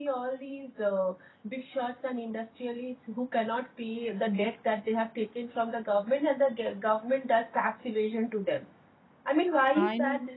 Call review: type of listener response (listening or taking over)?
listening